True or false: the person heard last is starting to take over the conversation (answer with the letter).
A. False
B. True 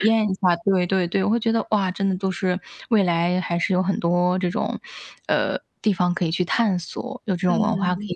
B